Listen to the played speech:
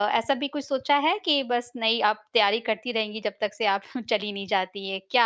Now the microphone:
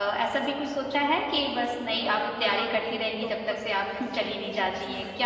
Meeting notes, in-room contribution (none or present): present